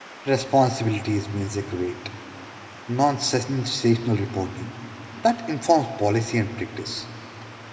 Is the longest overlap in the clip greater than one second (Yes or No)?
No